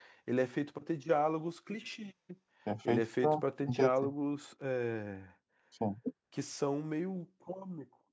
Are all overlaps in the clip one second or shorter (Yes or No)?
No